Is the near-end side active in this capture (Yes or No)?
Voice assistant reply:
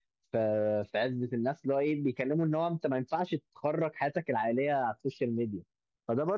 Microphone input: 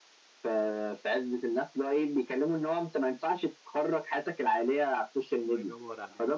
Yes